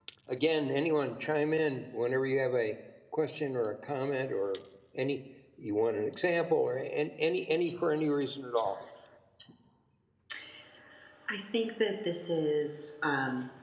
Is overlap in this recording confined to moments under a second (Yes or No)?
Yes